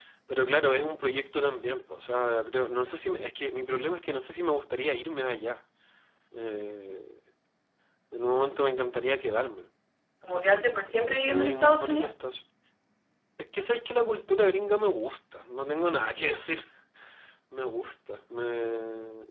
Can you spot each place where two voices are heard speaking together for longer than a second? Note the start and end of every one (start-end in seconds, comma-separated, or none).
10.3-12.1